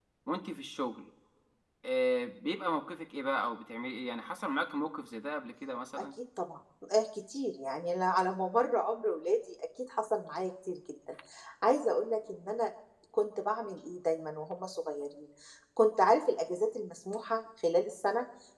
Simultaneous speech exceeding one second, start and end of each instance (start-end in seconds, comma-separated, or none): none